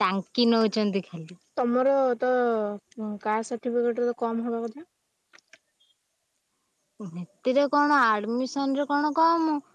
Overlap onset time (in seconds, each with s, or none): none